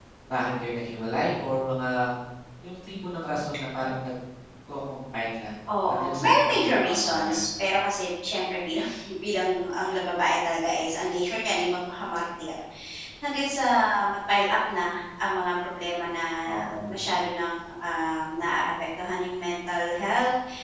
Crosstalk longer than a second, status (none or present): present